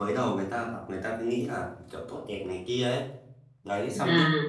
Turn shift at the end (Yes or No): No